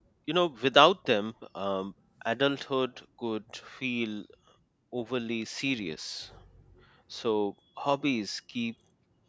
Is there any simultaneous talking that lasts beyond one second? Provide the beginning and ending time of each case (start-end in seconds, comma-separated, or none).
none